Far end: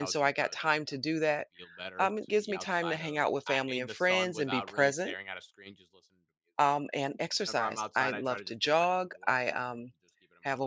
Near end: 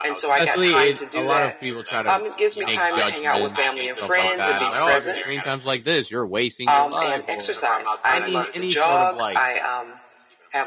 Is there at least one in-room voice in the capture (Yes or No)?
Yes